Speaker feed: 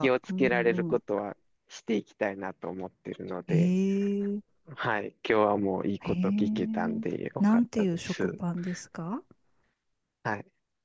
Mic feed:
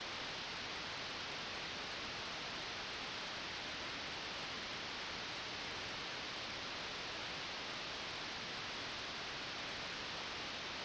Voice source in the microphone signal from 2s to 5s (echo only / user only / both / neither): neither